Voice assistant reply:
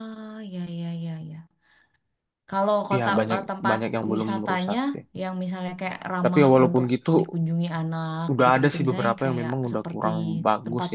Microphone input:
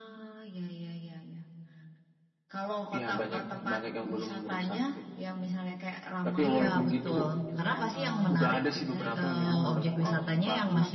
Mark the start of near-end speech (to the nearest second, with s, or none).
6 s